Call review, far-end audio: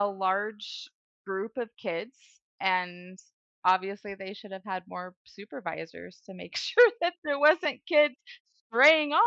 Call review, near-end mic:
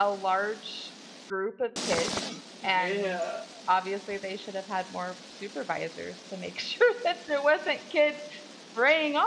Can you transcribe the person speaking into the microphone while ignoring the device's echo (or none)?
Yeah,